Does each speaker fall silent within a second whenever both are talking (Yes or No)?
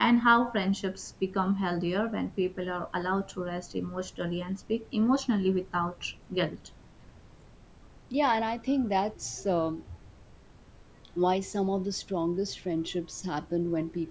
Yes